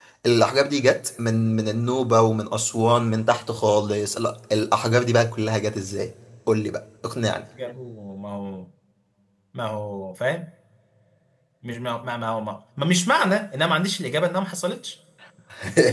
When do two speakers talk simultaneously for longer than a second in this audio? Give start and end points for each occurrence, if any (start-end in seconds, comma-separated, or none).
none